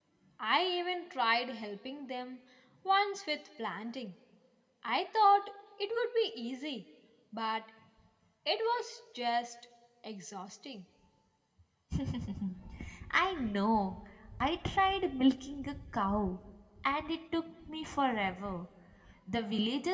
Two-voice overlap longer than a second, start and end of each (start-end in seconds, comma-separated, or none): none